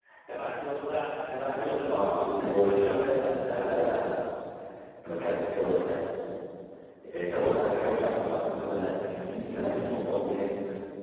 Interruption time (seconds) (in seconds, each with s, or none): 1.9 s